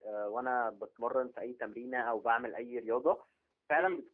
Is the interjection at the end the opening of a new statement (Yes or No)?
No